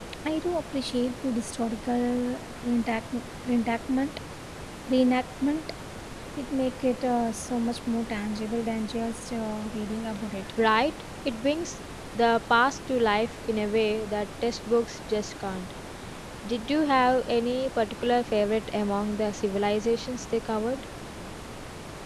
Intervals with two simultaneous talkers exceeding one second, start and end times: none

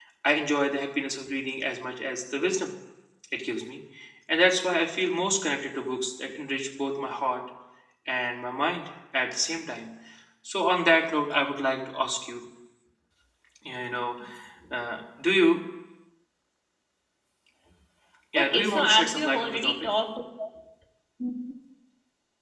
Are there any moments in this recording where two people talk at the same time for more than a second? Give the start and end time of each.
18.4-19.8

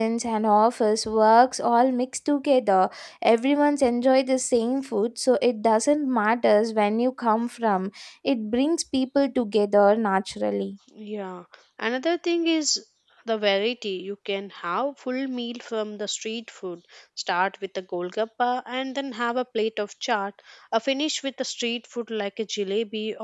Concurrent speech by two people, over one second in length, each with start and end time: none

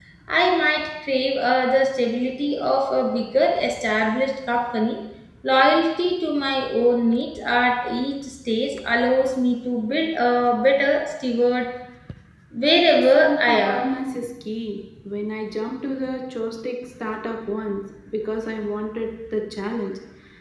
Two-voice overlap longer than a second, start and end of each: 12.6-13.8

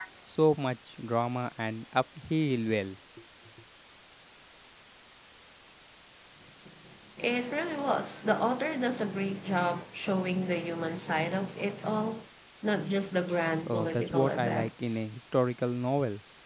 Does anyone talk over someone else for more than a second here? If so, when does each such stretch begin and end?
13.7-15.0

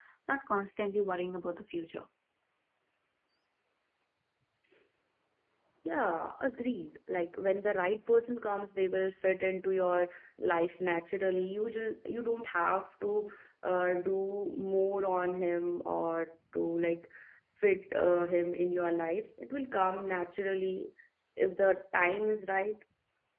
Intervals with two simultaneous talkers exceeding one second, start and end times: none

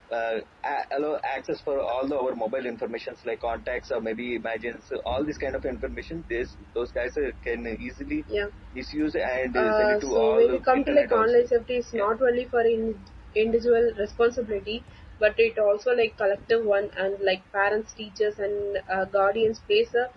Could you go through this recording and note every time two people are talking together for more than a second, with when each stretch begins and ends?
9.6-11.4

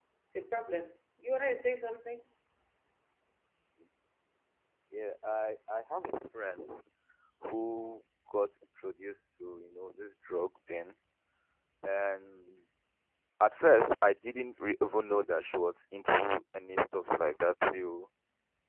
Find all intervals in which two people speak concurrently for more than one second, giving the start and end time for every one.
none

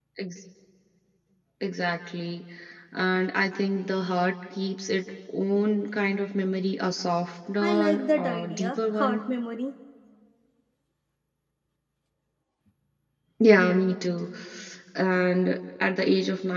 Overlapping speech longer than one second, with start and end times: 7.6-9.2

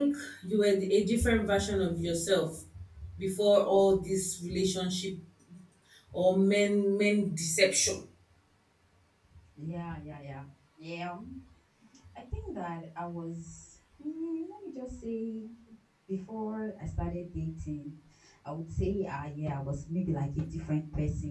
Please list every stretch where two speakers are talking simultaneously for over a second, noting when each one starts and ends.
none

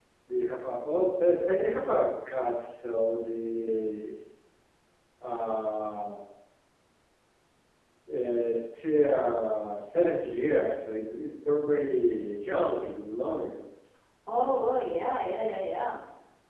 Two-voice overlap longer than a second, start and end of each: none

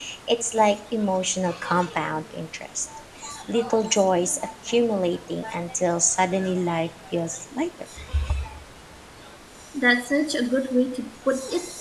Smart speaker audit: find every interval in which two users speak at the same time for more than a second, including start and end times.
none

